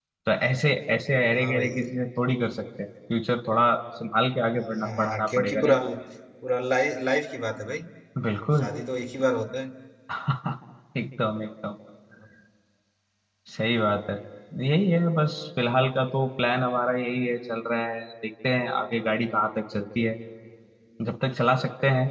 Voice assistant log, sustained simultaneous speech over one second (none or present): present